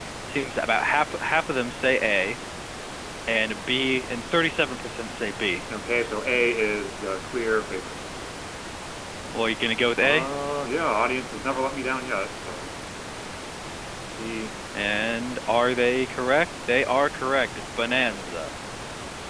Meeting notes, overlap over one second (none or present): none